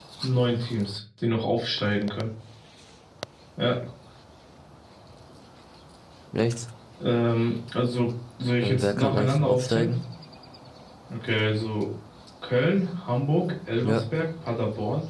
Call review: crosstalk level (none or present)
present